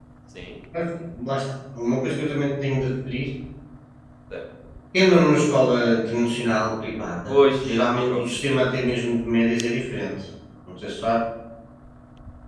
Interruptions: present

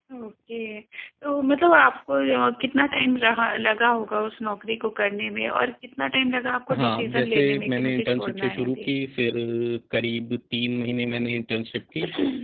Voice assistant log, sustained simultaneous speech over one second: present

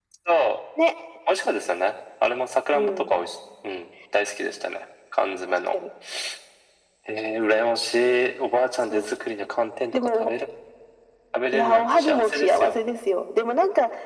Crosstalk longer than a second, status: present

